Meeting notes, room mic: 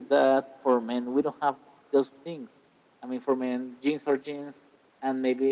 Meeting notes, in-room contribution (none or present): none